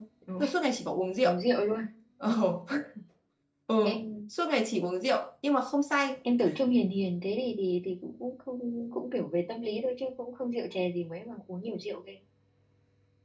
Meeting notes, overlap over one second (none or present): none